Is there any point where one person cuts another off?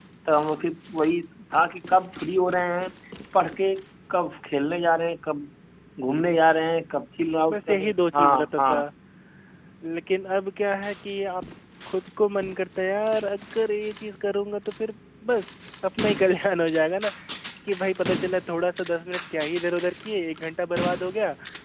Yes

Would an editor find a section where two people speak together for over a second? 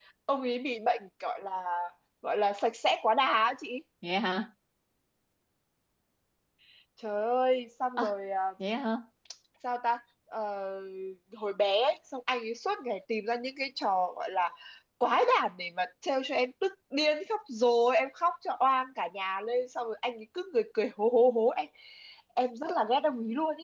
No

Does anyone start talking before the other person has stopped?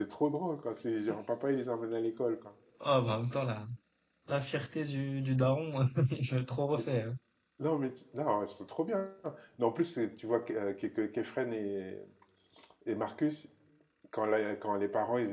No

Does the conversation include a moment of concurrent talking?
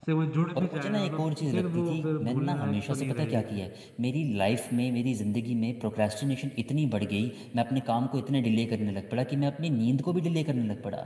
Yes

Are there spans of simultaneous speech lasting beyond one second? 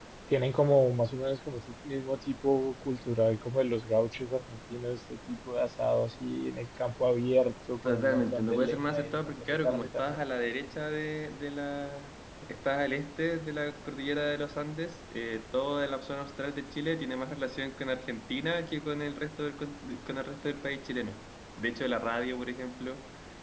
Yes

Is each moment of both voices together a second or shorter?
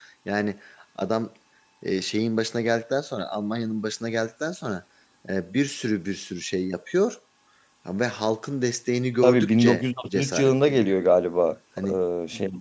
No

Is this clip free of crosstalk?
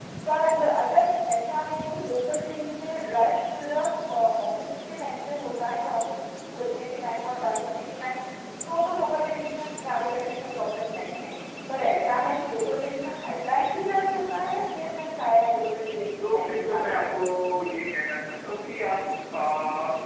No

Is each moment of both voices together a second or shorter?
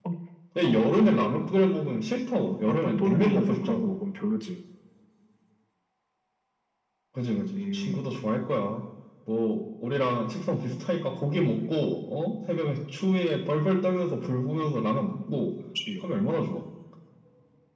No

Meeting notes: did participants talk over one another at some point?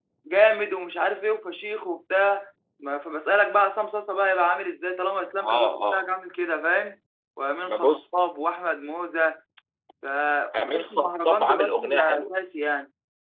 Yes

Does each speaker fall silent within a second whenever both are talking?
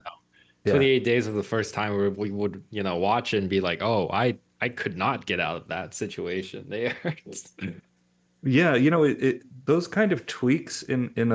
Yes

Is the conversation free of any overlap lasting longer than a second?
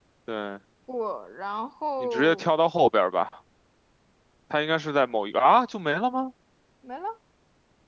Yes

